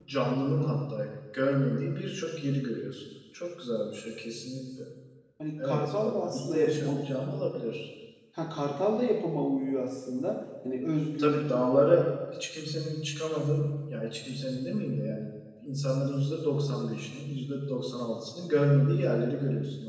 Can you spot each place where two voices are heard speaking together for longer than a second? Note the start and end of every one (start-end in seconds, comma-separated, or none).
5.6-7.0